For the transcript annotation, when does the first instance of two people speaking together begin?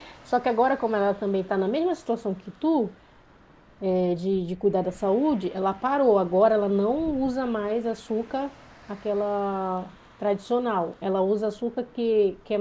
none

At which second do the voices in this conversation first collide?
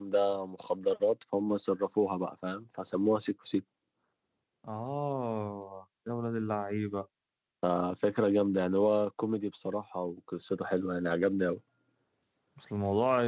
none

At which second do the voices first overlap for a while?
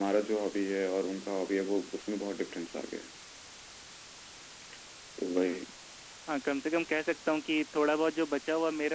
none

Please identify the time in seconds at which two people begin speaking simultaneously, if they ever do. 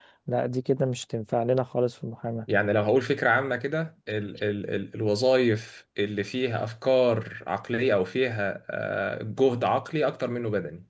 none

